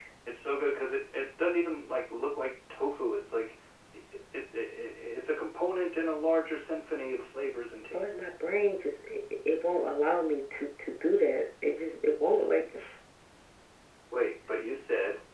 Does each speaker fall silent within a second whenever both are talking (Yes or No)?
Yes